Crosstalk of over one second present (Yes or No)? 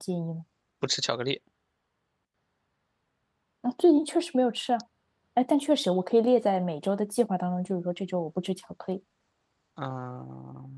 No